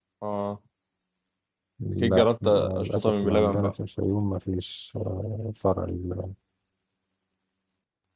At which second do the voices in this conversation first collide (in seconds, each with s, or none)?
1.9 s